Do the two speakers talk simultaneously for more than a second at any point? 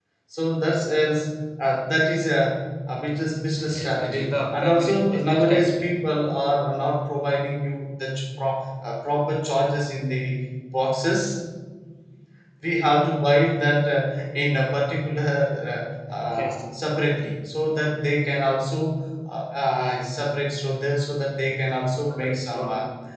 Yes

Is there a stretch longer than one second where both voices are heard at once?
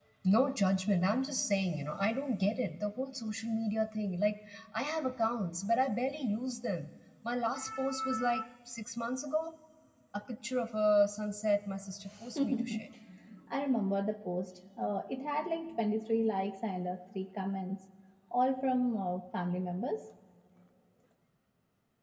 No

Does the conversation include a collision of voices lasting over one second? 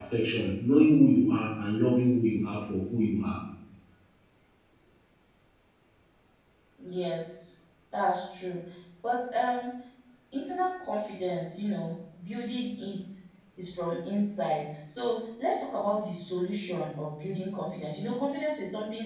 No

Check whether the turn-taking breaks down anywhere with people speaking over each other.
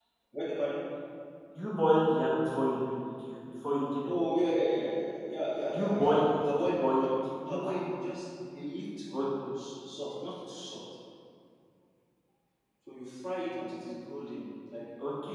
Yes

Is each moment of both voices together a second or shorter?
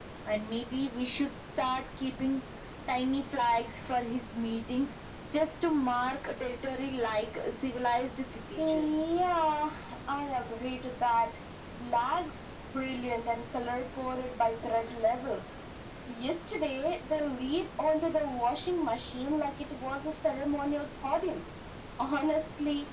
Yes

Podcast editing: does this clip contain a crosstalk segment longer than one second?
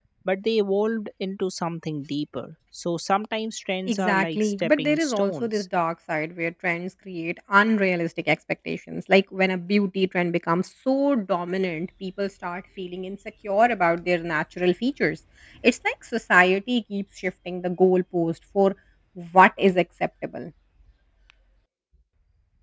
Yes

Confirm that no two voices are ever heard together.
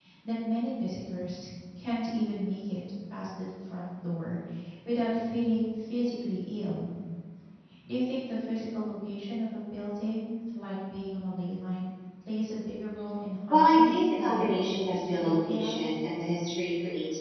No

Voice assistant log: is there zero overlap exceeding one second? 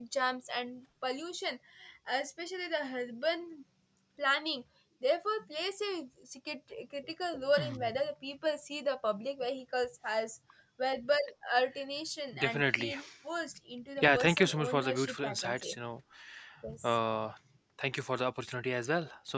No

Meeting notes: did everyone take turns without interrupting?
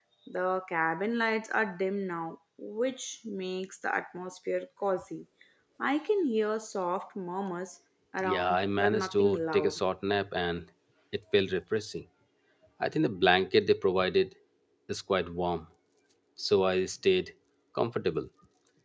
No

